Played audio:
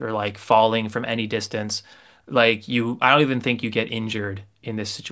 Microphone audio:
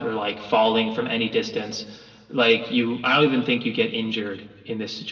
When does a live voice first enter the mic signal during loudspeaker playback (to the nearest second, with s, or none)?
none